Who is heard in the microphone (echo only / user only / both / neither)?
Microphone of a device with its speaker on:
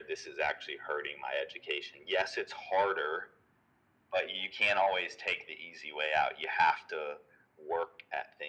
echo only